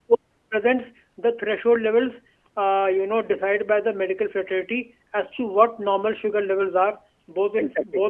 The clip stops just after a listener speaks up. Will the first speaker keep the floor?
Yes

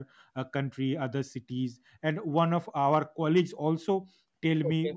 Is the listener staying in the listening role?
Yes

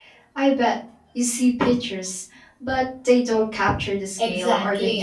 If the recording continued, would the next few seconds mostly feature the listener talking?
Yes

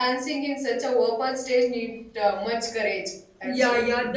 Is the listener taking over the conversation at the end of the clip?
Yes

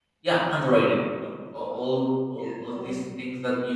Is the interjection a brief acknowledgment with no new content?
Yes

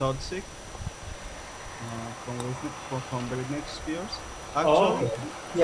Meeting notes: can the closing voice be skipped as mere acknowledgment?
No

